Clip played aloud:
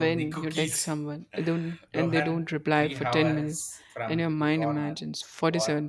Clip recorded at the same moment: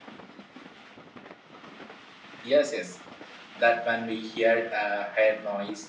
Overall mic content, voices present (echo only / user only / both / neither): user only